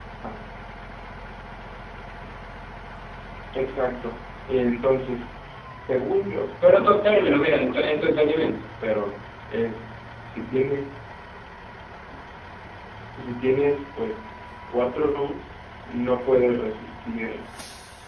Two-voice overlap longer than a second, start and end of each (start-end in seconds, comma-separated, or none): 6.6-8.4